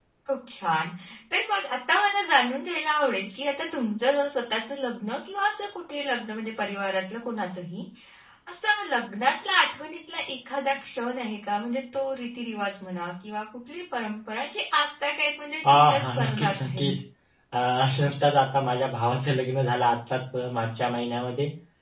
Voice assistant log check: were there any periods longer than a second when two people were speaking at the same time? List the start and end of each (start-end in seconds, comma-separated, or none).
15.7-16.9